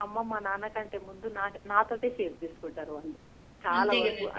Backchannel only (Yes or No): Yes